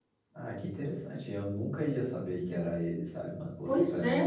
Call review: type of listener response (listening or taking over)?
listening